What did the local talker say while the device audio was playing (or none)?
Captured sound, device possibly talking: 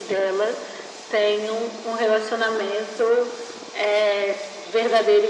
none